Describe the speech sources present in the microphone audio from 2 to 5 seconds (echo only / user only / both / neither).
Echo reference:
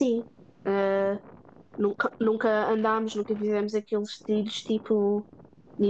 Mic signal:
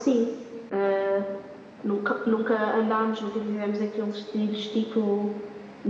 echo only